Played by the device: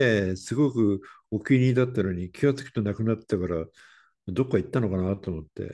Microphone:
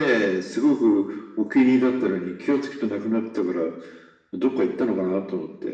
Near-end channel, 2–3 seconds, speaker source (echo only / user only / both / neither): echo only